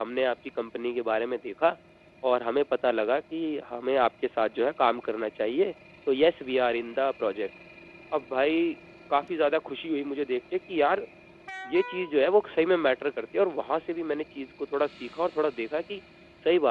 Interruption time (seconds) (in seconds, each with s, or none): none